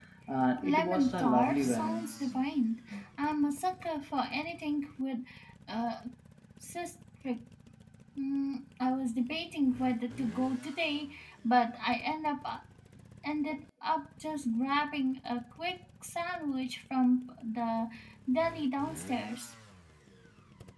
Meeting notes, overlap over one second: present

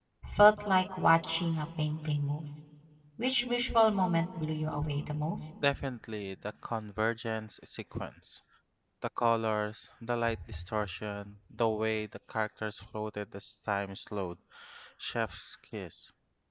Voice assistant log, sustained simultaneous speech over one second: none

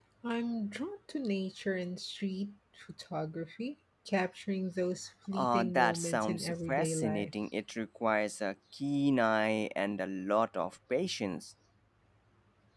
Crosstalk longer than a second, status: present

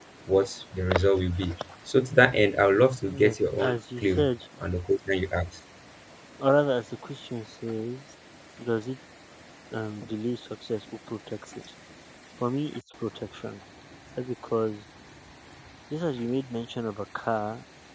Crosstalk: present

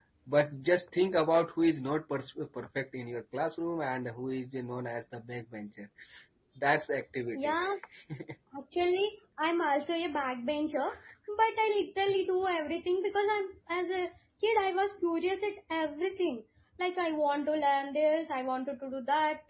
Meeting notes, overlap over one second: none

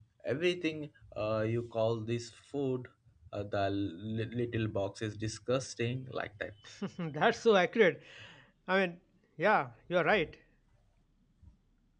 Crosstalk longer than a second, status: none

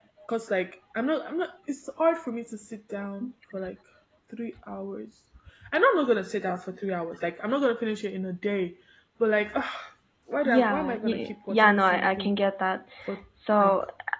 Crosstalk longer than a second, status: present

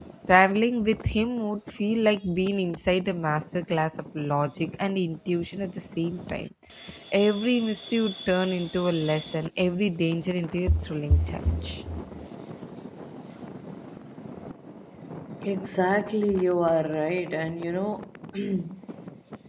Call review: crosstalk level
none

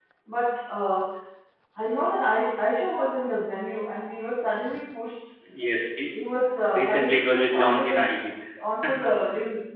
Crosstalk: present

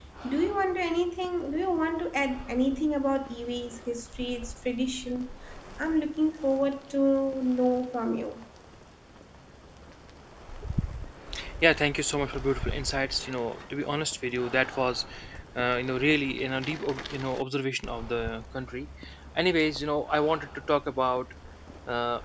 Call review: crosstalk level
none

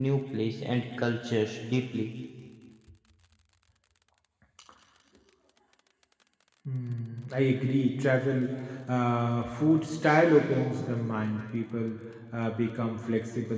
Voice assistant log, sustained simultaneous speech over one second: none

